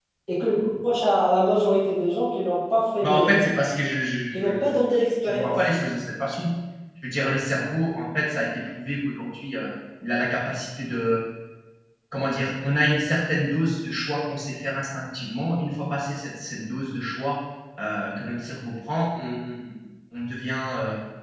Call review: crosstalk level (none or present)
present